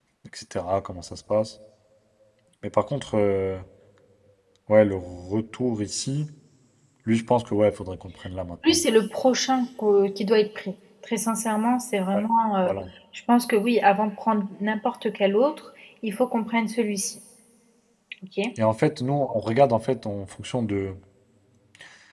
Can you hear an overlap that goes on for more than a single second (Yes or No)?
No